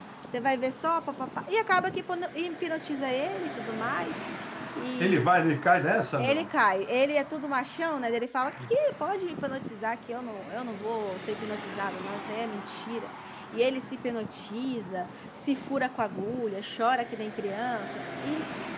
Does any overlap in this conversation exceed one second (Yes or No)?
No